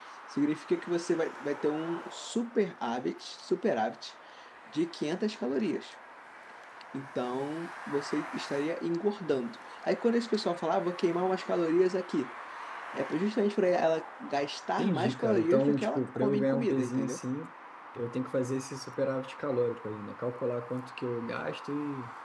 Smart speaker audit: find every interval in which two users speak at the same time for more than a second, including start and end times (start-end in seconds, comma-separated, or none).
14.8-17.2